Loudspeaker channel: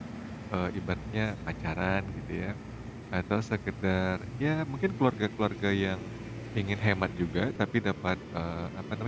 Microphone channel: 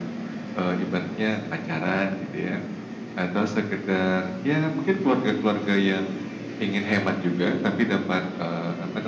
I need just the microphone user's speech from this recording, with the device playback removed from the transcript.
none

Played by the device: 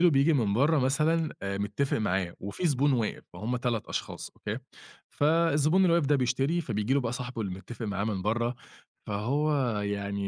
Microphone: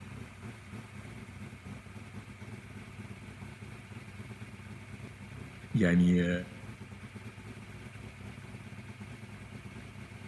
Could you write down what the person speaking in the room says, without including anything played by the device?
يعني

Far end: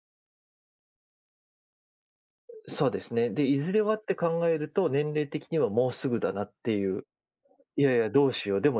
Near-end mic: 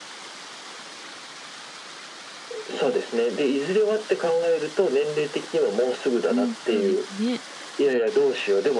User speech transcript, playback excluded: うん、そうですね。

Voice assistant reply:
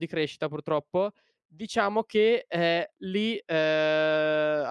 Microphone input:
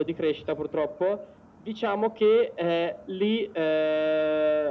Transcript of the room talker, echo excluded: none

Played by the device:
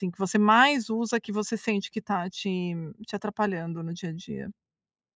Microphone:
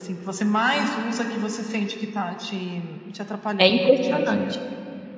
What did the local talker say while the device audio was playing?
É impressionante.

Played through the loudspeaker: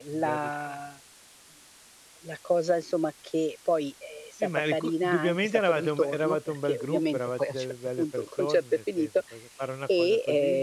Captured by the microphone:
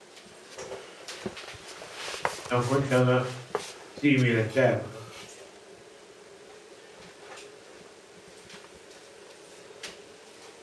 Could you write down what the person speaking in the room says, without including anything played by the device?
Da un con da una simile, certo.

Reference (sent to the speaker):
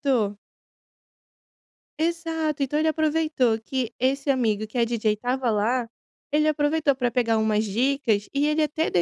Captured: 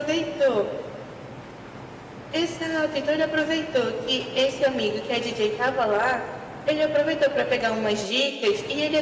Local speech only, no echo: none

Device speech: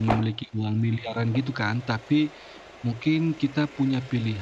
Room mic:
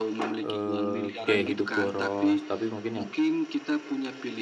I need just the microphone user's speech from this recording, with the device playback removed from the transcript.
eee, gaya hidup boros, tapi mungkin ya

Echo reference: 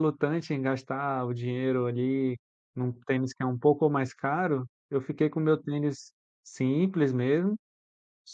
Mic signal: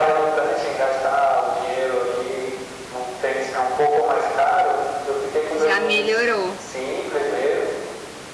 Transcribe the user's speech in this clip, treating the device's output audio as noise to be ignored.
Já melhorou.

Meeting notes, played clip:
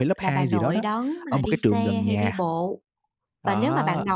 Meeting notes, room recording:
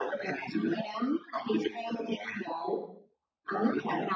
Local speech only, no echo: none

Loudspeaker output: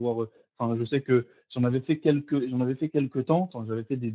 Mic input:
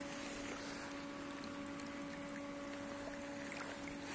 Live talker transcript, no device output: none

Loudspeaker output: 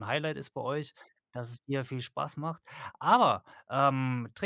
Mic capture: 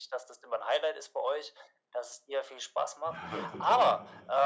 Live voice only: Ja, total.

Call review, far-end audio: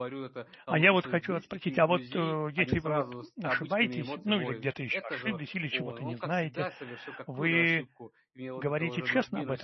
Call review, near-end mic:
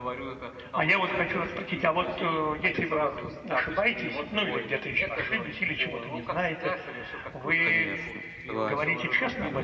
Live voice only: Конечно, согласен.

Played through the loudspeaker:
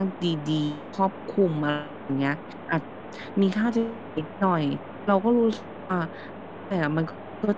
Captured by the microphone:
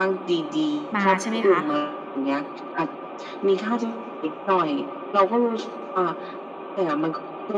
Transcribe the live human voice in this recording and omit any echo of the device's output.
มา ใช่ไหมคะ

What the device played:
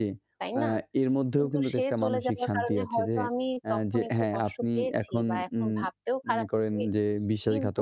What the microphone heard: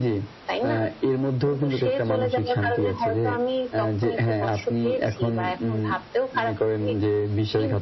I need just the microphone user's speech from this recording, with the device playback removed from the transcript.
none

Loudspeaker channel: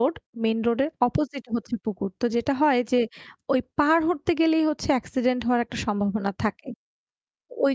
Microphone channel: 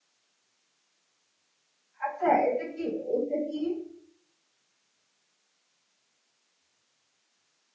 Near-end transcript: আচ্ছা এটা কি এটা কি

